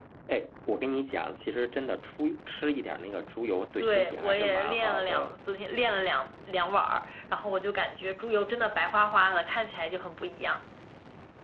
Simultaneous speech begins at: 3.8 s

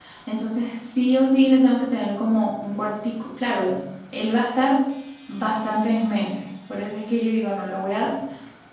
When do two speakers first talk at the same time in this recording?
none

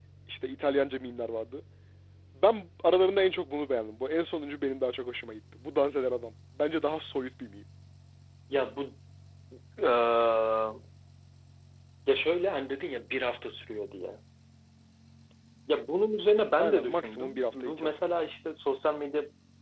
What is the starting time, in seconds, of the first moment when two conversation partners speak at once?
16.6 s

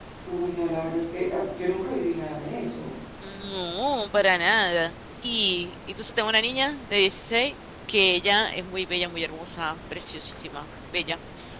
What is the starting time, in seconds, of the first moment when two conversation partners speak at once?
none

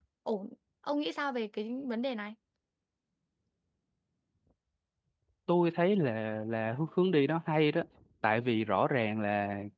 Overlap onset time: none

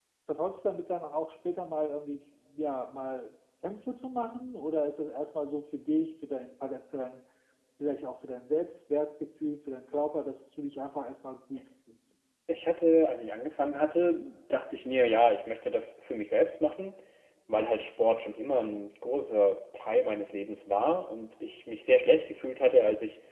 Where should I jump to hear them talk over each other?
none

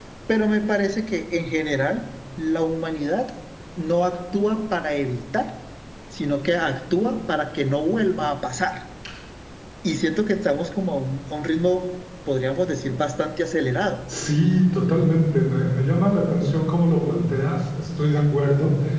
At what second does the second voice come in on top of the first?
none

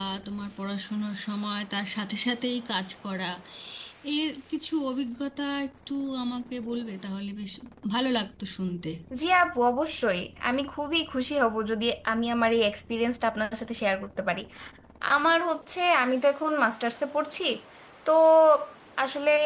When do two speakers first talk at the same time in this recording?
none

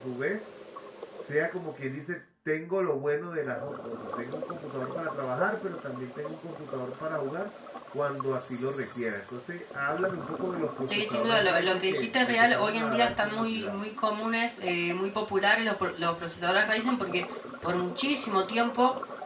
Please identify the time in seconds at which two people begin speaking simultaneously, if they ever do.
10.9 s

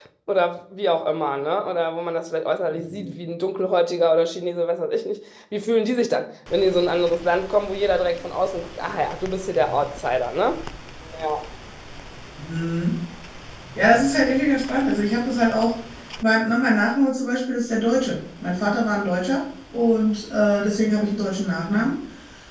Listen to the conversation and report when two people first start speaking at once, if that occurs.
none

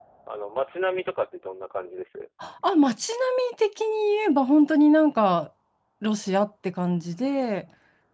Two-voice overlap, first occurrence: none

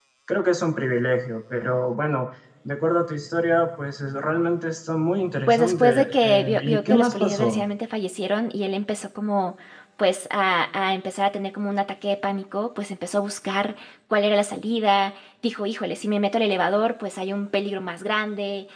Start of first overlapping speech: 5.5 s

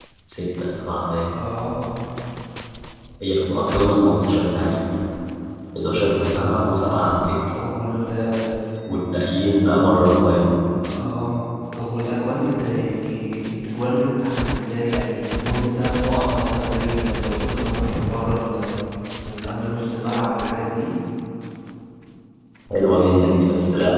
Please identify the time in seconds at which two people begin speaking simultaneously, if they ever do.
none

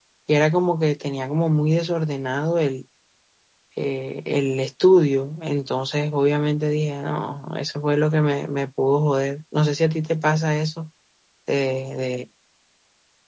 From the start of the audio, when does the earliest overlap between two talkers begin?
none

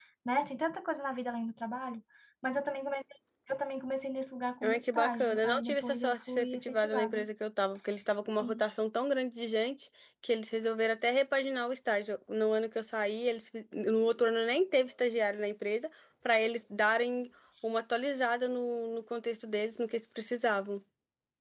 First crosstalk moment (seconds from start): 4.6 s

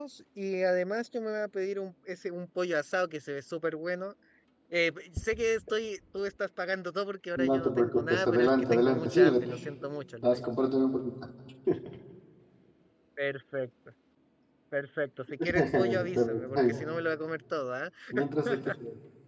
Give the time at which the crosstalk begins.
7.4 s

